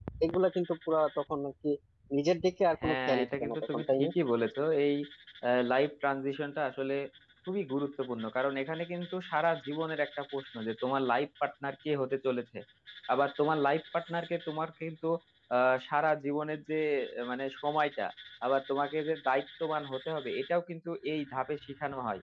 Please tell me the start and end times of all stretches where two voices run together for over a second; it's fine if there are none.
2.8-4.1

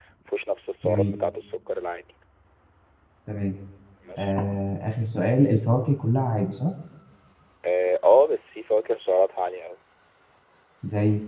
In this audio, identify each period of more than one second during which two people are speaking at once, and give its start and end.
none

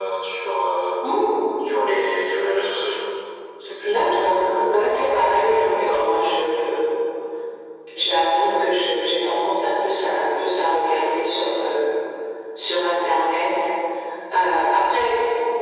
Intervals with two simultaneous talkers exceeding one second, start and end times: 3.8-6.2

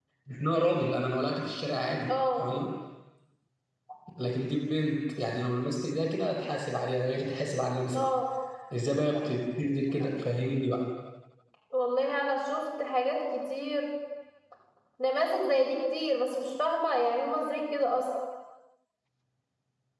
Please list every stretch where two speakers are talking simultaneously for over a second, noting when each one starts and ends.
none

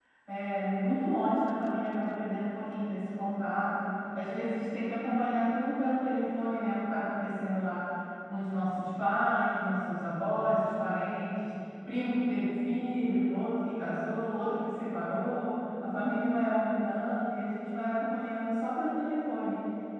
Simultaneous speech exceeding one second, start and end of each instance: none

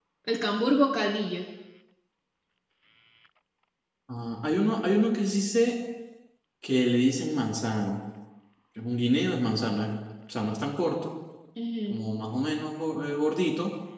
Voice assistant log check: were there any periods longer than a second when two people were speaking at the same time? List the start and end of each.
none

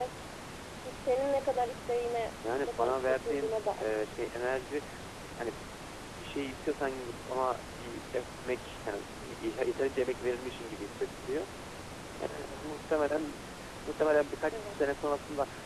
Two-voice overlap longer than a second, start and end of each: 2.7-3.9

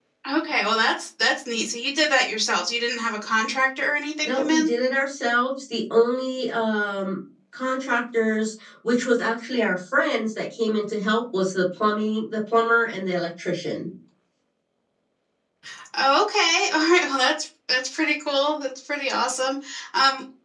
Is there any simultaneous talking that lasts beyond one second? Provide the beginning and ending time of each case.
none

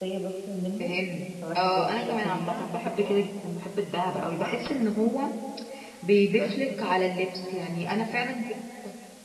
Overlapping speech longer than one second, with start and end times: 1.6-3.2

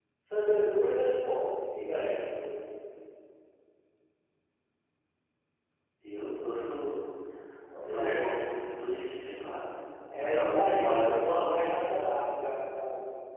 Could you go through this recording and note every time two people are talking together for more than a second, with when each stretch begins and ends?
10.1-11.7

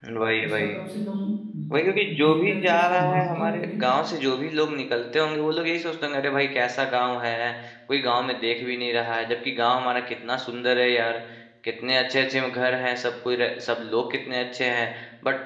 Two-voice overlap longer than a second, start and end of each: 2.2-3.8

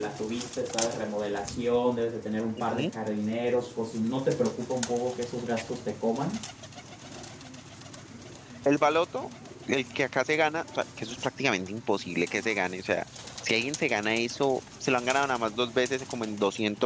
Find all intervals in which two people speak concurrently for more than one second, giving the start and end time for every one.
none

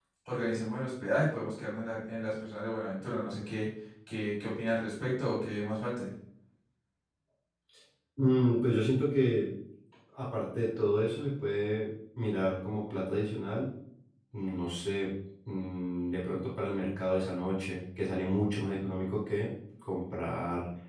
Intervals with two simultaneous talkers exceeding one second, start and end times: none

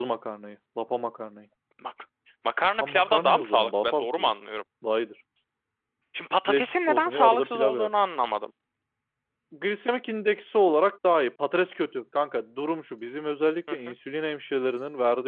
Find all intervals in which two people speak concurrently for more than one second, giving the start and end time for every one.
2.8-4.3, 6.5-7.9

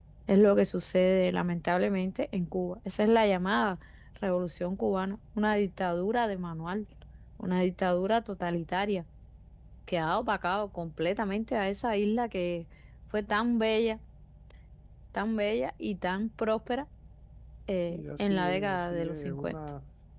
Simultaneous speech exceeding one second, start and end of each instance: 17.9-19.5

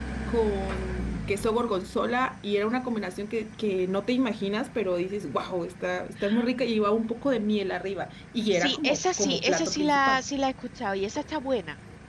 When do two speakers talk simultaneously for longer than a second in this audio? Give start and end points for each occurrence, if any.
8.5-10.2

